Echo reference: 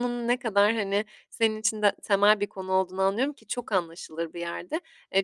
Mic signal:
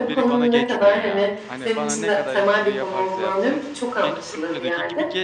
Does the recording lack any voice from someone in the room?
No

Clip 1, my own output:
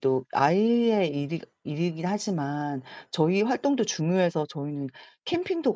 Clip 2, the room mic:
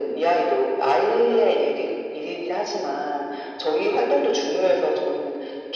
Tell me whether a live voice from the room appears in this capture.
No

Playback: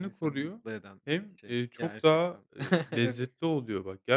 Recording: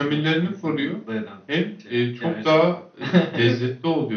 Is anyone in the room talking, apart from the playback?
No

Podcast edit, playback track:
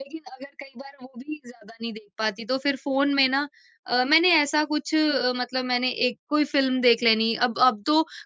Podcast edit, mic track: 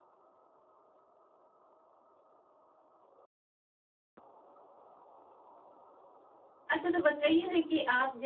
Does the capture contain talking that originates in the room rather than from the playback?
Yes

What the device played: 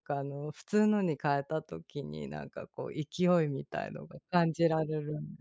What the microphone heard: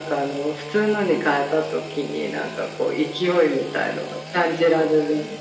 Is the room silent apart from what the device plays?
Yes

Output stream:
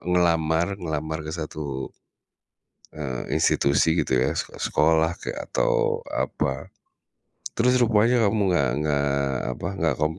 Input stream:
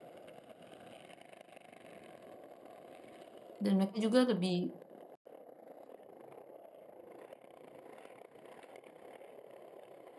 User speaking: Yes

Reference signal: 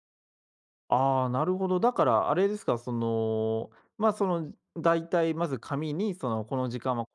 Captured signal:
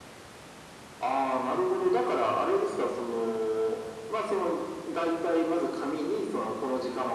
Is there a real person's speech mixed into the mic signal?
No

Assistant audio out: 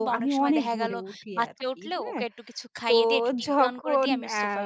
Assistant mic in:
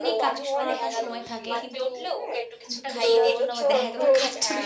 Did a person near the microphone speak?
Yes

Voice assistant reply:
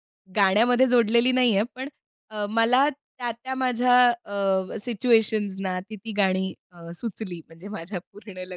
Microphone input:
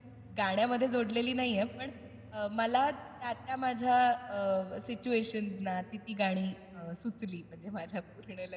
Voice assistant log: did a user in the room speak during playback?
No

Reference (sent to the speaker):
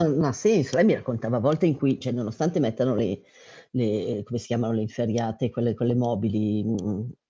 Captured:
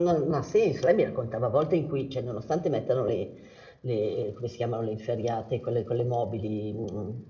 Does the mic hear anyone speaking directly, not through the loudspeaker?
No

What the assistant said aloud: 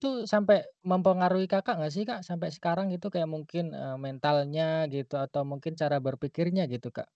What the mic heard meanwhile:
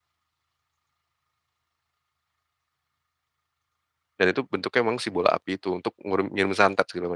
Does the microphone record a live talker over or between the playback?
Yes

